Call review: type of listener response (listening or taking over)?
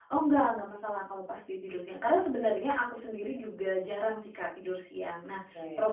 listening